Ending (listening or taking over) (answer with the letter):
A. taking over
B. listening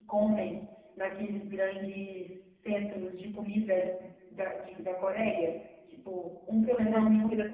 A